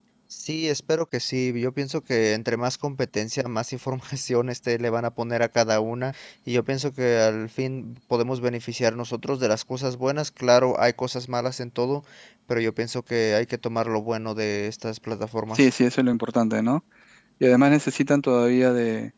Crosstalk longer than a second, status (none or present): none